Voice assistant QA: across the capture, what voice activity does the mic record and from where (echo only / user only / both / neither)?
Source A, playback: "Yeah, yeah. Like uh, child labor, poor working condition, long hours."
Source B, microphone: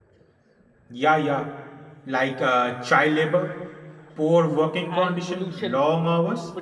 both